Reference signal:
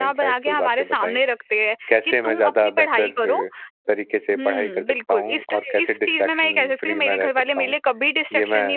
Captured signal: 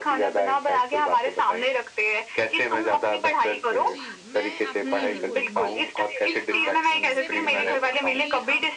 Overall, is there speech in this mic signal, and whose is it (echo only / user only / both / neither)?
both